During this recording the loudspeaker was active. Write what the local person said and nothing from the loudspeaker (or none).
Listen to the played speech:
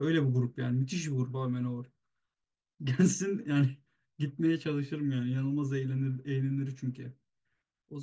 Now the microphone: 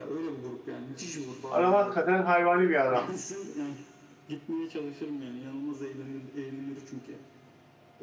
Adam hakikaten hayvani bir adam.